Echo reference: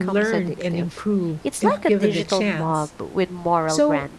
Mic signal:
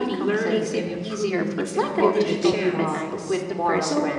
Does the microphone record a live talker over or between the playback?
Yes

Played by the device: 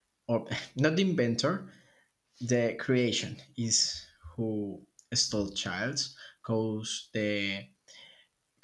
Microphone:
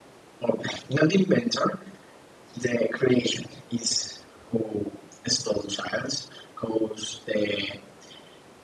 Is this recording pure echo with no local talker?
Yes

